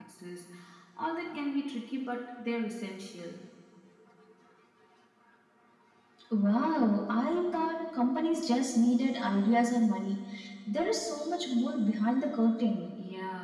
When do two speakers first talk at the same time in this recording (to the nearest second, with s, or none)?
none